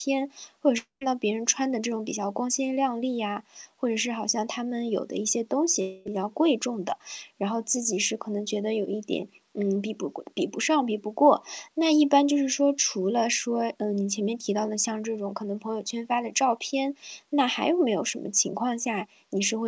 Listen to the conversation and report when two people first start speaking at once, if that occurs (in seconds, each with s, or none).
none